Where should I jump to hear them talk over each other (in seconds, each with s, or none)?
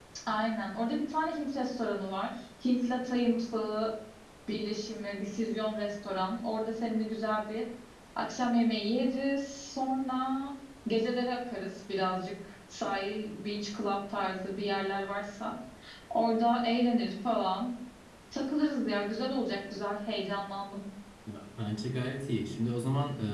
none